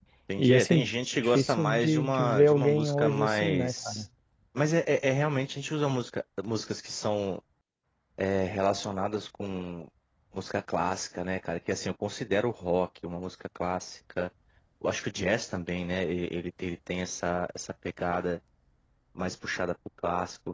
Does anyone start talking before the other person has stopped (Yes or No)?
Yes